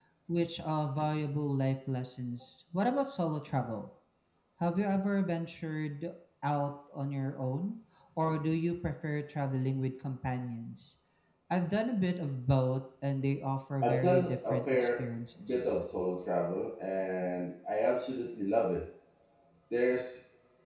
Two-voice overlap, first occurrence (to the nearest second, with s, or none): 14 s